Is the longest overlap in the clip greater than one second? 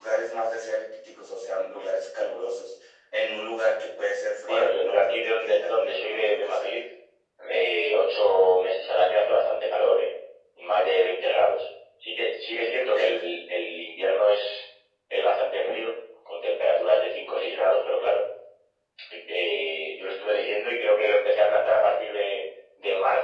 Yes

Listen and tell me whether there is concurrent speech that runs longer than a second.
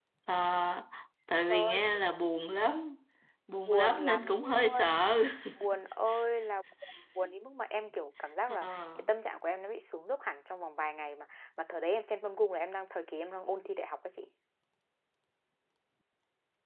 Yes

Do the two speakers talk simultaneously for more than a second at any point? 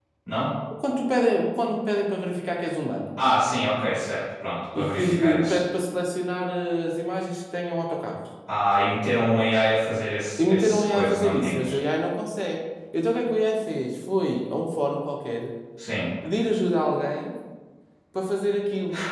Yes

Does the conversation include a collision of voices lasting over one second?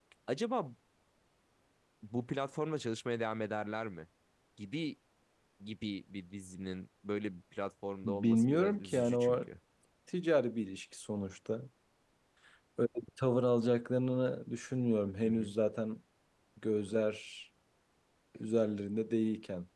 Yes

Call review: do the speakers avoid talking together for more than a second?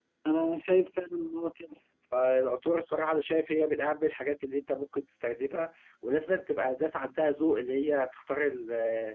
Yes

